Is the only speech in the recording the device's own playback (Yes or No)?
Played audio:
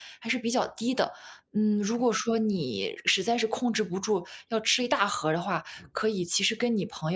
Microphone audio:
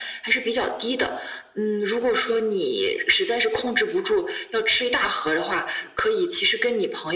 Yes